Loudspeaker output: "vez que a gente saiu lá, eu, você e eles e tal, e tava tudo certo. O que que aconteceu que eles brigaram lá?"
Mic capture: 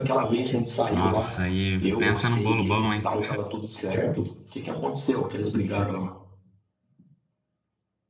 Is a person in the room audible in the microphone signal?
Yes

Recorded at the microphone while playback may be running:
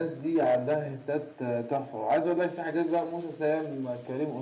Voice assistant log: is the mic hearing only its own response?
Yes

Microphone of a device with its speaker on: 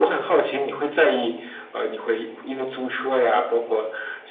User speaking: No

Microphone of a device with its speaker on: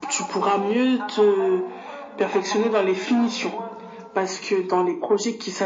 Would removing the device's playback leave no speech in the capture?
No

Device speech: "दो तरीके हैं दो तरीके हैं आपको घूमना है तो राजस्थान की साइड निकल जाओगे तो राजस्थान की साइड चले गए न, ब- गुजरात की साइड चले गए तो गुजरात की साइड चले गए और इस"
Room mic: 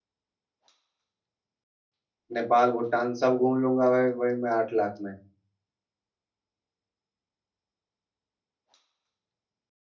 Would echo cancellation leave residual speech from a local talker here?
Yes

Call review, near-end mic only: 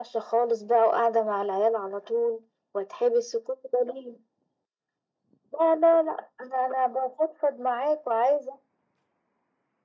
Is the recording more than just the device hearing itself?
No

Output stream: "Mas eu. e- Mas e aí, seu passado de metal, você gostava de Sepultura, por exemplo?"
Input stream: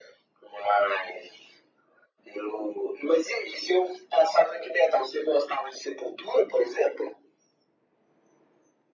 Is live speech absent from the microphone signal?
Yes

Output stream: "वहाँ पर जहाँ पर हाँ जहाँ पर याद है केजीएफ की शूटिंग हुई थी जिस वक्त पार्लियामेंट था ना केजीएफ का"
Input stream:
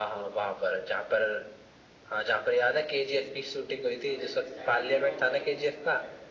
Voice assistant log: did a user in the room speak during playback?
Yes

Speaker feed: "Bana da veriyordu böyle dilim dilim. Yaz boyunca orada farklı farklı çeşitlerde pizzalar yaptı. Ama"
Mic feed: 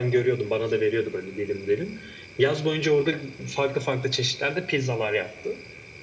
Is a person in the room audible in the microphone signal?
No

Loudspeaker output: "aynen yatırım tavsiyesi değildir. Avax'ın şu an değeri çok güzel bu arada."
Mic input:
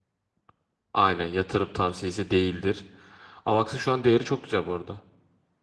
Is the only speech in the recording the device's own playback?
Yes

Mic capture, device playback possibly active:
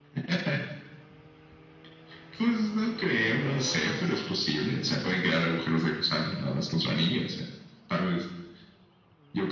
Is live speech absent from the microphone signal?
Yes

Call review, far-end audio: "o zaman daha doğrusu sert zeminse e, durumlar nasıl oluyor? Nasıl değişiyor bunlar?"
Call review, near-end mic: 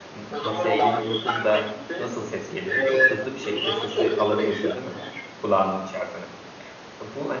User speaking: Yes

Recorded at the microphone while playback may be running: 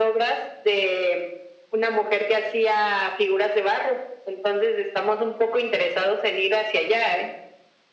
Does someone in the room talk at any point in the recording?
No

